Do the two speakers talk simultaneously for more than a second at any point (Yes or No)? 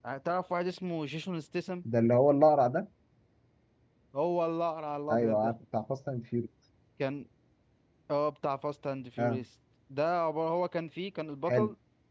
No